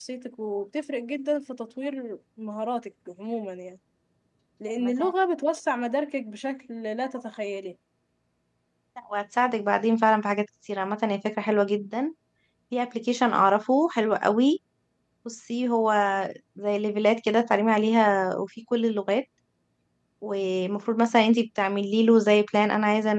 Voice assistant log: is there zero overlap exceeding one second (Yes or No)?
Yes